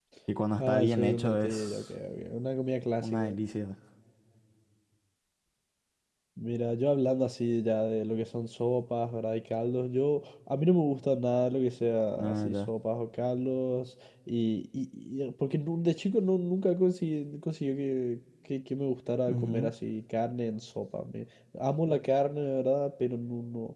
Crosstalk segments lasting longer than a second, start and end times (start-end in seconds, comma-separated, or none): 0.6-1.9